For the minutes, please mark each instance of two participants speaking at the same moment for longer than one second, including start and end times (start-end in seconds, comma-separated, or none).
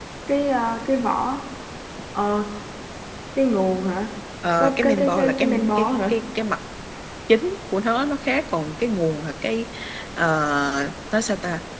4.6-6.1